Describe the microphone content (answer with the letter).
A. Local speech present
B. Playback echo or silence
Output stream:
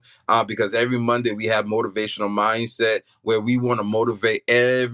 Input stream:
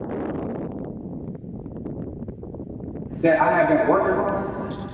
A